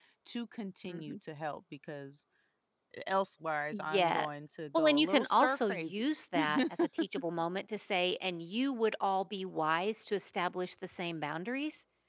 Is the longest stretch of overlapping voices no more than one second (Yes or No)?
No